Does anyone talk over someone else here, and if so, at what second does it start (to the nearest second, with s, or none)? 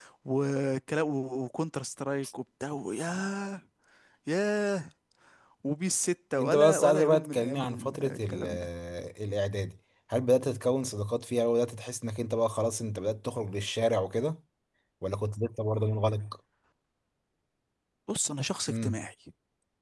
6 s